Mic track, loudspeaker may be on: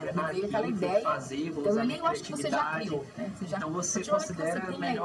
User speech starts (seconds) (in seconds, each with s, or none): none